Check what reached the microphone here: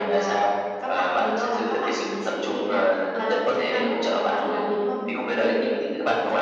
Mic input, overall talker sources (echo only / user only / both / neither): both